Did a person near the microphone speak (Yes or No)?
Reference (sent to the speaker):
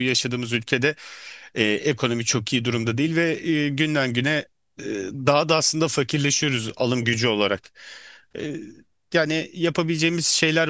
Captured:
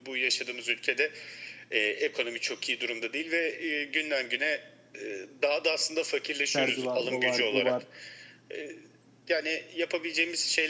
Yes